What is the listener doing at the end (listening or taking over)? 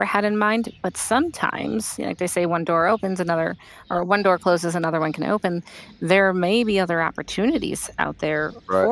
listening